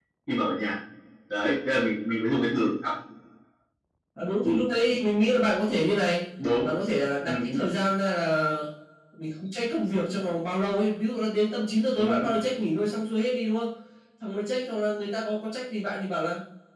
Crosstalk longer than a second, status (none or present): none